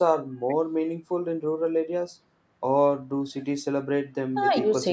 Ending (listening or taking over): taking over